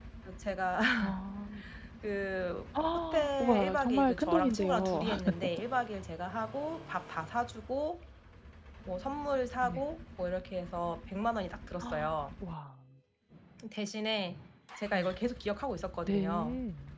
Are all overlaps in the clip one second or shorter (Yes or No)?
No